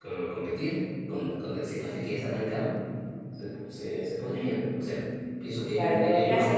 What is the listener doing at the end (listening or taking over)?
taking over